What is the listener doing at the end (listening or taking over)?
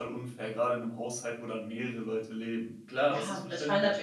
taking over